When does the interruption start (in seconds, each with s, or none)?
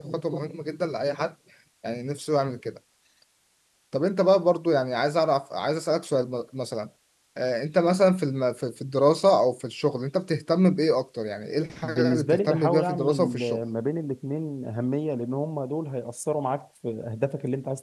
11.8 s